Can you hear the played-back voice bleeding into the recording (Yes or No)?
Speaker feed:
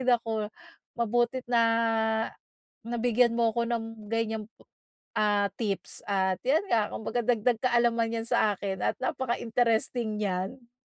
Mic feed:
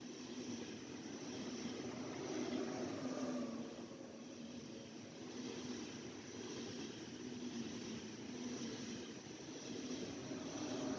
No